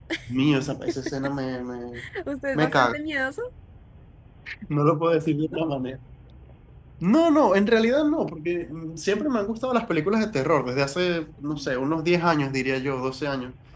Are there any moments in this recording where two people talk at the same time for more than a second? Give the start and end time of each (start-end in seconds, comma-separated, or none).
none